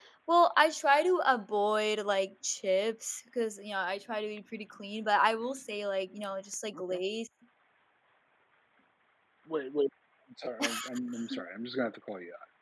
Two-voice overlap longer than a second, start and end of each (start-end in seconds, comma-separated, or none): none